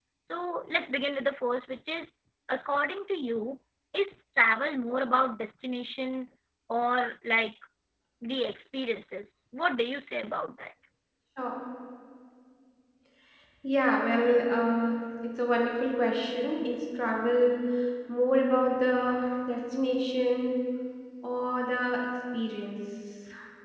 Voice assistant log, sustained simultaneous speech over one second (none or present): none